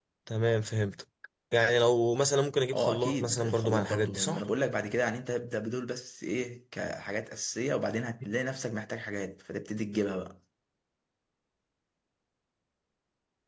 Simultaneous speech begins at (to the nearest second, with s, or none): 3 s